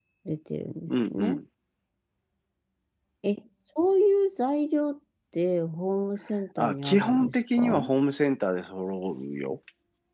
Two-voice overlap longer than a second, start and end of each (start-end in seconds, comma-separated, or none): 6.6-7.9